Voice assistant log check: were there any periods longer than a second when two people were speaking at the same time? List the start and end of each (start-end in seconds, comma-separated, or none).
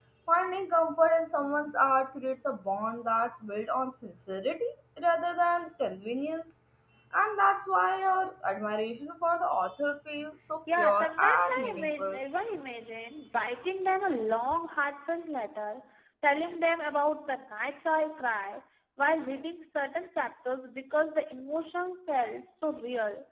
10.8-12.2